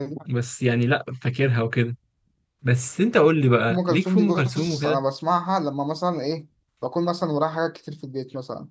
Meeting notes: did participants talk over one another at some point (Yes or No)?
Yes